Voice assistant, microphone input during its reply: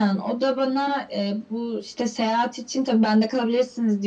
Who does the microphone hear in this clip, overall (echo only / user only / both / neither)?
echo only